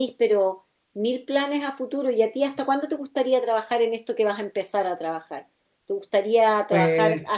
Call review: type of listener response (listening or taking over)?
listening